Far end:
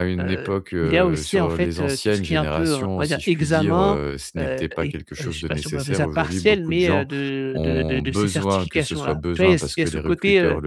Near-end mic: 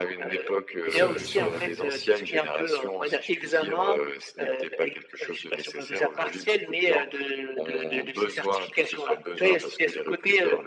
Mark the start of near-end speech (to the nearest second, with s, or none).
1 s